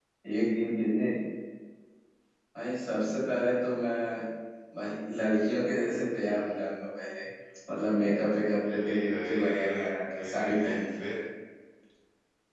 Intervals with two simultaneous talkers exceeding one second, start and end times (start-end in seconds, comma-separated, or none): 8.8-11.0